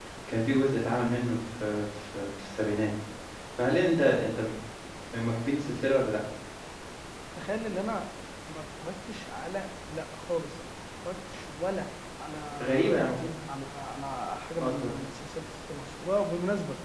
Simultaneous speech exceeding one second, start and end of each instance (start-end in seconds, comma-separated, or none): none